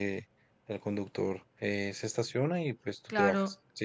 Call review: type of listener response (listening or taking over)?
taking over